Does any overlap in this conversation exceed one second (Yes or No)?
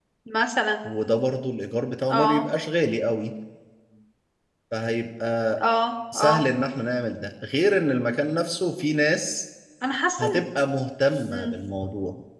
No